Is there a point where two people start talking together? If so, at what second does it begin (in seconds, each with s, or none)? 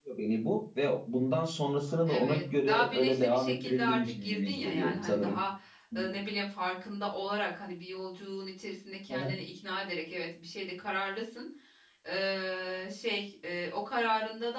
2.1 s